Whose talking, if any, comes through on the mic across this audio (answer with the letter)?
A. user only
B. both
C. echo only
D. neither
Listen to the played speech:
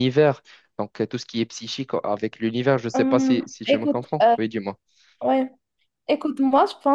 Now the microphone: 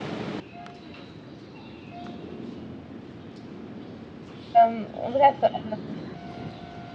A